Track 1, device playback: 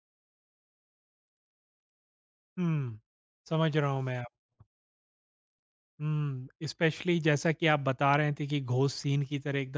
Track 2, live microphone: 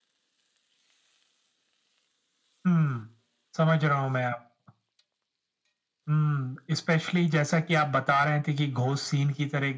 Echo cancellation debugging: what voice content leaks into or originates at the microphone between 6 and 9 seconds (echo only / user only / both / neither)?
echo only